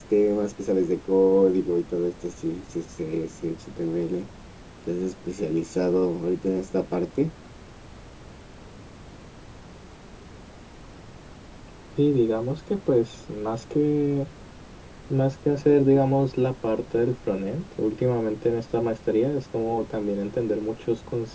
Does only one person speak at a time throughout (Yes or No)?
Yes